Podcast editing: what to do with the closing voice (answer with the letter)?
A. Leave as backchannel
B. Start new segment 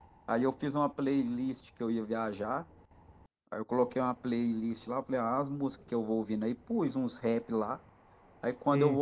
A